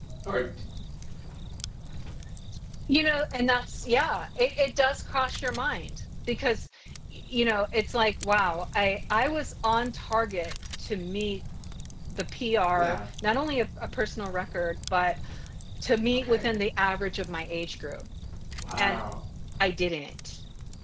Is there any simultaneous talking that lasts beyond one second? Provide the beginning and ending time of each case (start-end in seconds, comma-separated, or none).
none